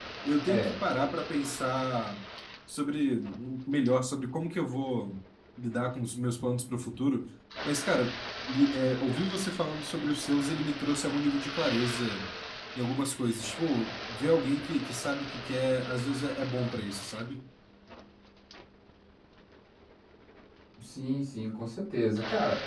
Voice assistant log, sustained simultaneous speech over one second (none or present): none